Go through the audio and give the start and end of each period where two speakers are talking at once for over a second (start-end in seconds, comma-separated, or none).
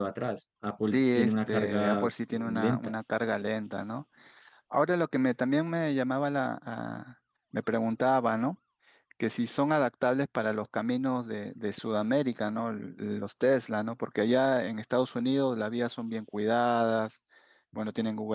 0.9-2.9